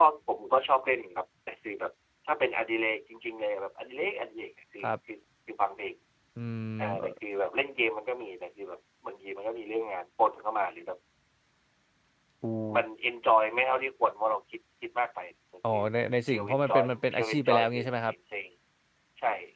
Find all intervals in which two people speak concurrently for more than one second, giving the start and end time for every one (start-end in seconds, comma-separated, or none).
16.3-18.1